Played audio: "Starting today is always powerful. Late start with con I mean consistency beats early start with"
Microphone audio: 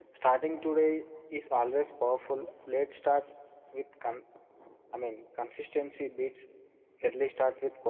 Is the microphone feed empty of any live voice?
Yes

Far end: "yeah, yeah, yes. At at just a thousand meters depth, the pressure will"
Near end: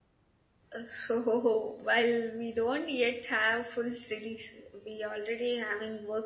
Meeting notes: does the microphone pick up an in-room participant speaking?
Yes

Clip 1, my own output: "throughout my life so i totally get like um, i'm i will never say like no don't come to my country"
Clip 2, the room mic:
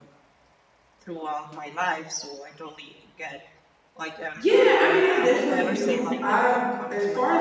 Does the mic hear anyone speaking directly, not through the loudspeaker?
Yes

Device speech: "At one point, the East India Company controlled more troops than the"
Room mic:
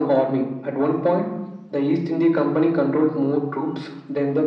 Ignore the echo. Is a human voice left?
No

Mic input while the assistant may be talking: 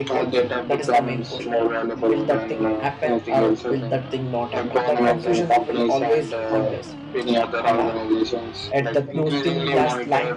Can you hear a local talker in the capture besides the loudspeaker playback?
Yes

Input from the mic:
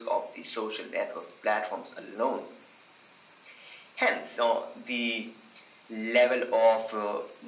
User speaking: No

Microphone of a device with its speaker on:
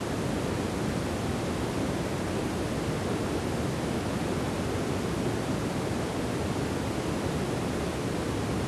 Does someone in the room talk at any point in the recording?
No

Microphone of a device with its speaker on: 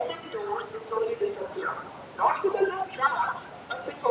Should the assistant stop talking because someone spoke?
No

